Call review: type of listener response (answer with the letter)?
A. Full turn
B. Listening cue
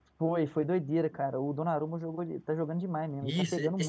A